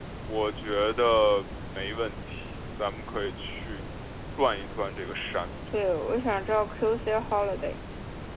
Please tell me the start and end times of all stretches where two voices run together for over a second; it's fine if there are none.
none

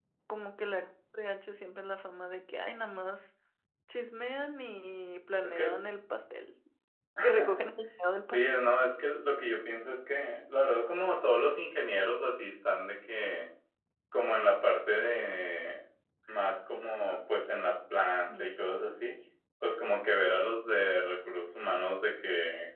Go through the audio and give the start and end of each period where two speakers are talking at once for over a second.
none

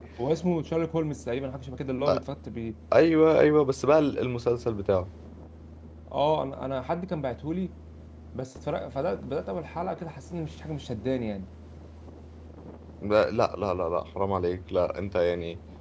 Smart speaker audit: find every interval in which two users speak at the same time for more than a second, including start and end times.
none

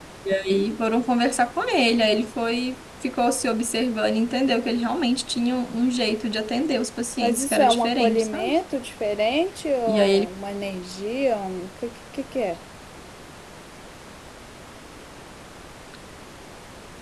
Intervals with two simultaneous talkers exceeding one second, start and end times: 7.2-8.6

